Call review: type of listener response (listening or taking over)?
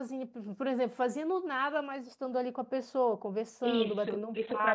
taking over